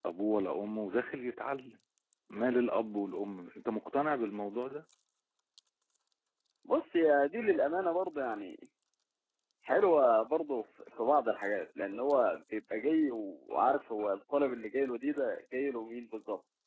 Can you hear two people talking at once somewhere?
No

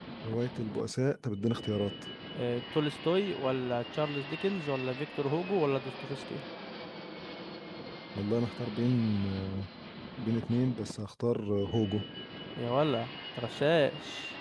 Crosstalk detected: No

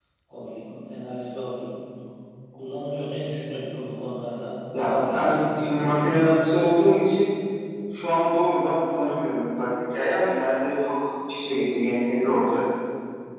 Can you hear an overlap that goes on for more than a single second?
Yes, from 4.7 s

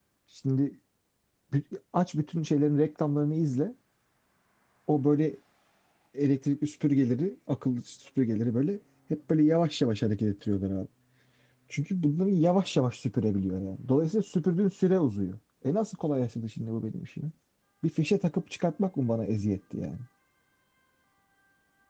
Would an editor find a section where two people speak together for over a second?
No

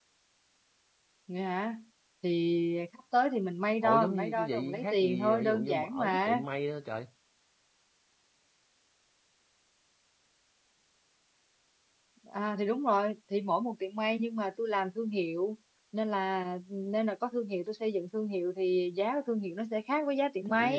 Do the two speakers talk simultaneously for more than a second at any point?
Yes, from 3.8 s

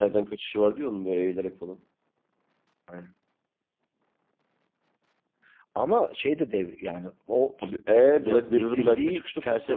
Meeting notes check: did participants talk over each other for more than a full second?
Yes, from 7.6 s

